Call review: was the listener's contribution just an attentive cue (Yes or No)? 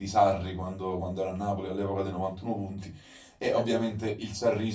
Yes